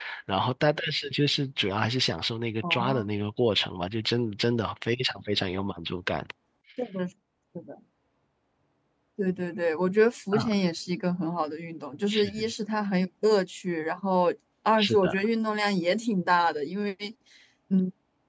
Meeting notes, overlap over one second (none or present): none